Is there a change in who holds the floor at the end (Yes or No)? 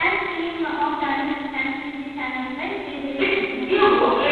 Yes